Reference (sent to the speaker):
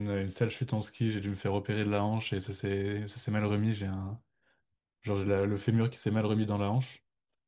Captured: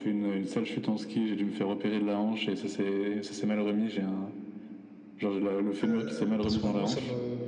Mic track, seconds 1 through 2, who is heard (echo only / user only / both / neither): echo only